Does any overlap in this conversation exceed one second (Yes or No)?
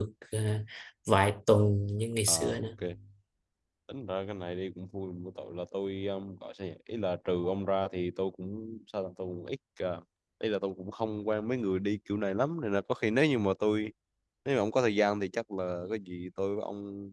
No